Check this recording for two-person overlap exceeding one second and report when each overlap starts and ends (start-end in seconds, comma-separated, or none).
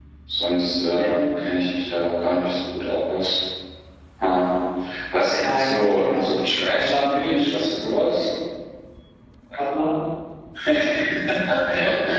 5.4-7.5